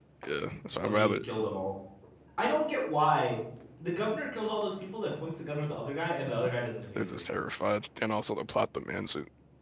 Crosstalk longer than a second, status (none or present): none